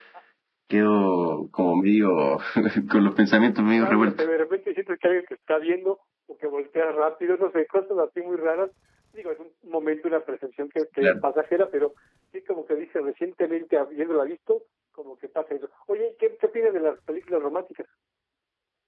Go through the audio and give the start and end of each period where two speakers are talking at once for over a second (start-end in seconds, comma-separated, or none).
none